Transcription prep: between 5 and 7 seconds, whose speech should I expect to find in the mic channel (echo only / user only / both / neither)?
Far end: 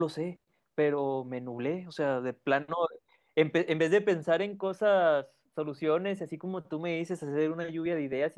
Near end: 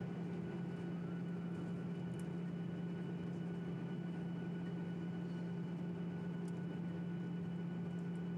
neither